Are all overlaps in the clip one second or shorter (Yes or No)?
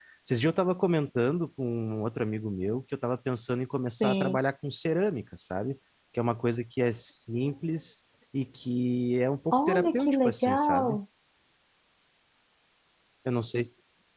No